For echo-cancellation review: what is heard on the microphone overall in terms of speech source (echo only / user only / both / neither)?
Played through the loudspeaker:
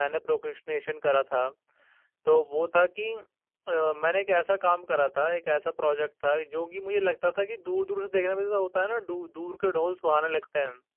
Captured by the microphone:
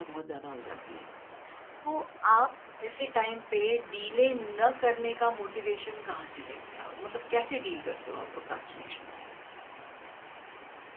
user only